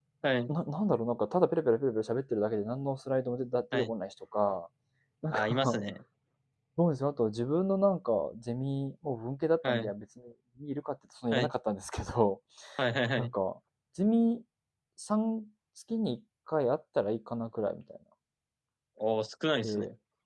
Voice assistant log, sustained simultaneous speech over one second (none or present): none